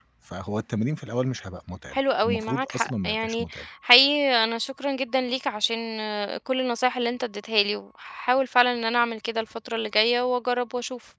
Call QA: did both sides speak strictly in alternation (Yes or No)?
No